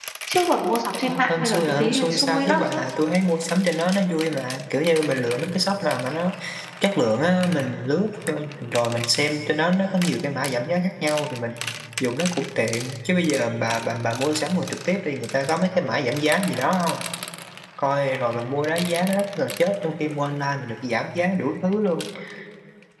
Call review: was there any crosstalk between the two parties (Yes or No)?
Yes